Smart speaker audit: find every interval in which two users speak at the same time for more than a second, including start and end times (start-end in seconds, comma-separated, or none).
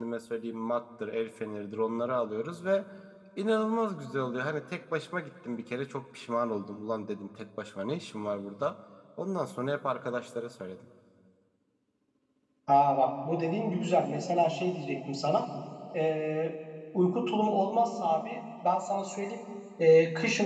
none